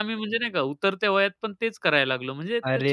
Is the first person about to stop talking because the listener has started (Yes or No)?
Yes